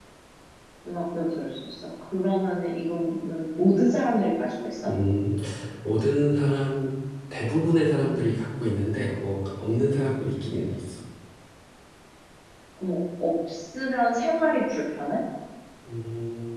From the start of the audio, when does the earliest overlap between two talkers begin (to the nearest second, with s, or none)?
none